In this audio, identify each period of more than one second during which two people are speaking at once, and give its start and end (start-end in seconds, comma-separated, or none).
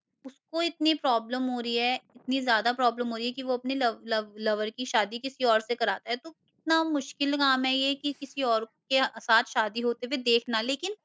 none